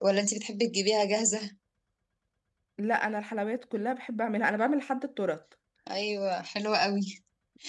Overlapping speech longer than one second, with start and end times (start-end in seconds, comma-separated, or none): none